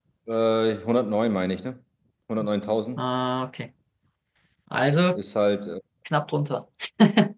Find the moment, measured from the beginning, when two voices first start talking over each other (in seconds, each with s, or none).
none